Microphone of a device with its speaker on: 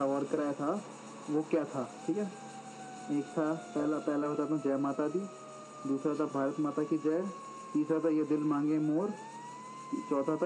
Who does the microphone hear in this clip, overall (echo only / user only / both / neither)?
echo only